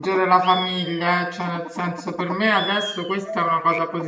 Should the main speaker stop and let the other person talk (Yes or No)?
No